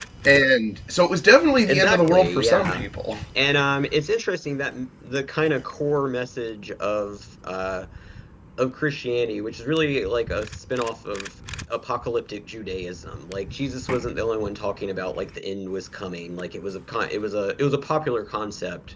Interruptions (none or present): present